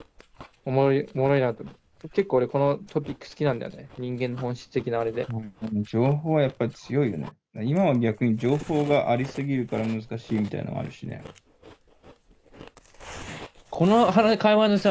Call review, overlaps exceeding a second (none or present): none